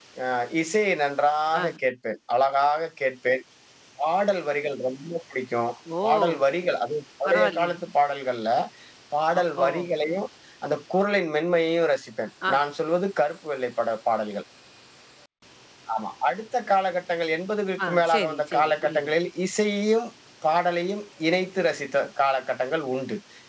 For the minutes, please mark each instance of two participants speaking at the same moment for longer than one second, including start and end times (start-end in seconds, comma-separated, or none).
17.8-19.1